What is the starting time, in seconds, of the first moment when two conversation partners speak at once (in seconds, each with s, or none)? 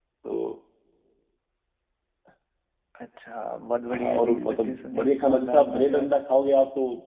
3.9 s